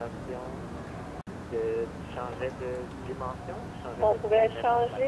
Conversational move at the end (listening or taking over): taking over